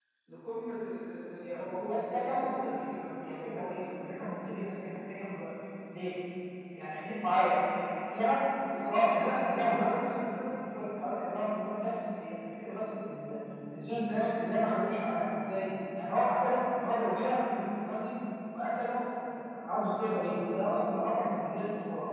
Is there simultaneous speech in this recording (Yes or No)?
Yes